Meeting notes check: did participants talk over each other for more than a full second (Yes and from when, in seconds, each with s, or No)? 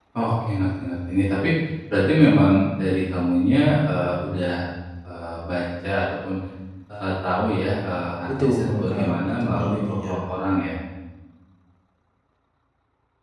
Yes, from 8.3 s